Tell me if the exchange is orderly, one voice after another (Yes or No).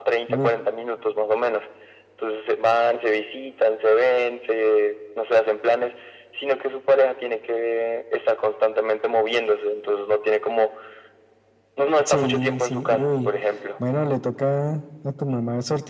No